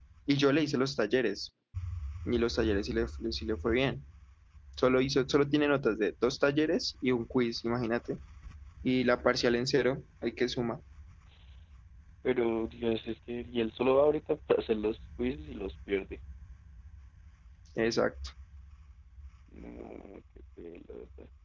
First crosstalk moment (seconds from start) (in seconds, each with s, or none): none